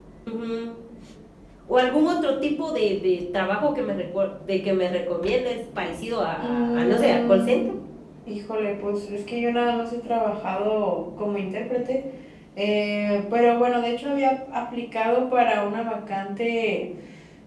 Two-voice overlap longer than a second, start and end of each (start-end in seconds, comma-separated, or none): 6.4-7.6